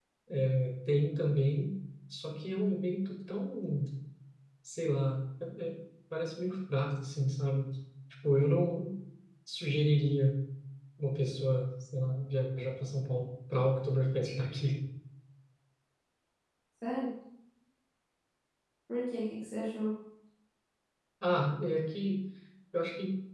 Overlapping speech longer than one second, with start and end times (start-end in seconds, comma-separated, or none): none